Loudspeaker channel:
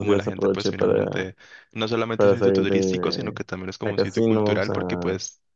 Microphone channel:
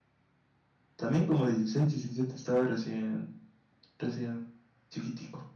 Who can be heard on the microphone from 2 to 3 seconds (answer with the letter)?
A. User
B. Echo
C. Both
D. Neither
A